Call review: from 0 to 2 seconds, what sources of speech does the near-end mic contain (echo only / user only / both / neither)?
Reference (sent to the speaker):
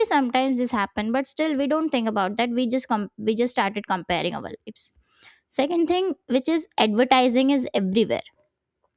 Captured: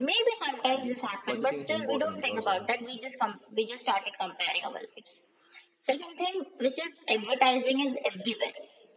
both